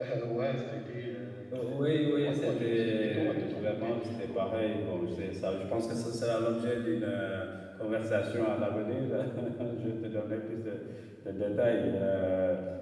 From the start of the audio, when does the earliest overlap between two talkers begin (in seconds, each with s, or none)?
1.5 s